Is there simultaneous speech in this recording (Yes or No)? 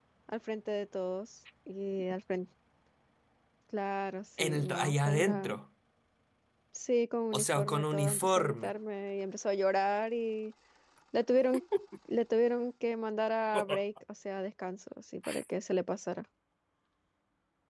Yes